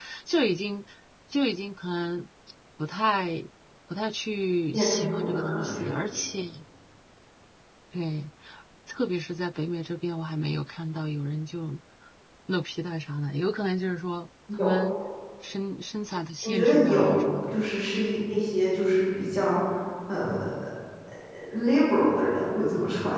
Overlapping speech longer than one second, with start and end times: 4.7-5.9, 16.4-17.6

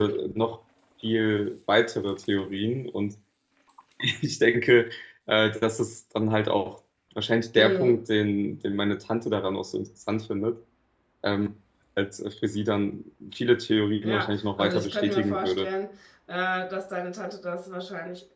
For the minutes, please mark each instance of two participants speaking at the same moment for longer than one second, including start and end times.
14.0-15.7

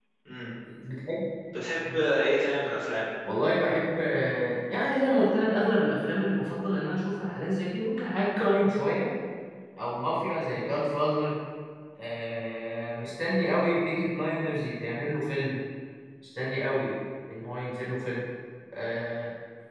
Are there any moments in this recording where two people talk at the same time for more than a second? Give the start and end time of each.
none

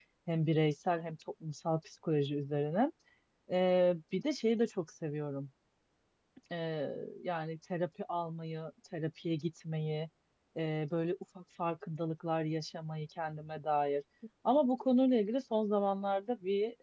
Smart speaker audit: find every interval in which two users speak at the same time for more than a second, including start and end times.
none

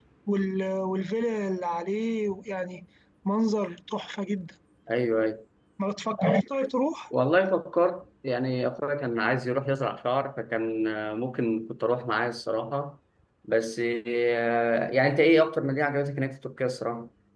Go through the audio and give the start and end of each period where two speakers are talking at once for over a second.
none

